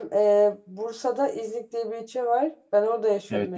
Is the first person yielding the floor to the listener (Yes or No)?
No